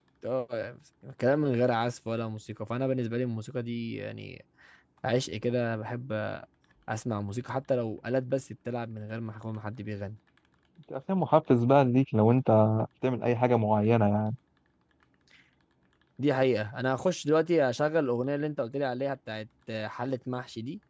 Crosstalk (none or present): none